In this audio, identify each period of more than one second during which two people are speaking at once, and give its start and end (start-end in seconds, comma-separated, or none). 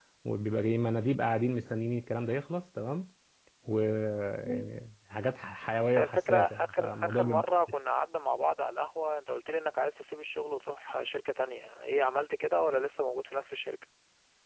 5.9-7.4